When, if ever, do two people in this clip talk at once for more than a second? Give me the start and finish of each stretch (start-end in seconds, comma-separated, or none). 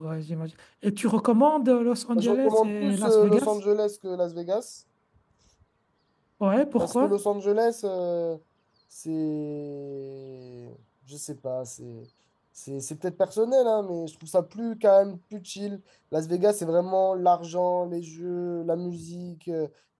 2.2-3.5